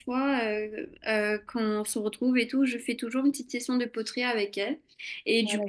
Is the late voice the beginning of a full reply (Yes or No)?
No